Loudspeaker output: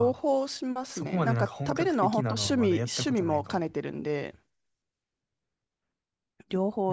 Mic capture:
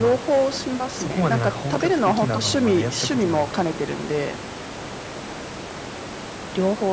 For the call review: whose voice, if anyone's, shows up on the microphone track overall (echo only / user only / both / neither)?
echo only